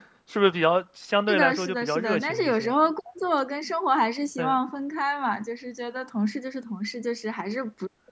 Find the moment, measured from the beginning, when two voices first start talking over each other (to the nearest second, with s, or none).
1 s